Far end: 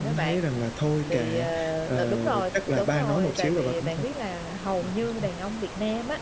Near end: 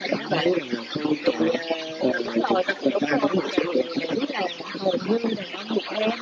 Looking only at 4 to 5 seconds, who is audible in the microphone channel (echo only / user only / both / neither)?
echo only